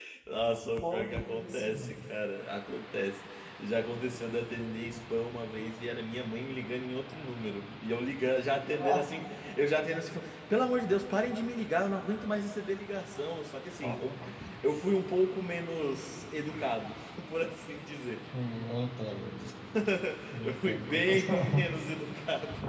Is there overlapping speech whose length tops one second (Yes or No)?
Yes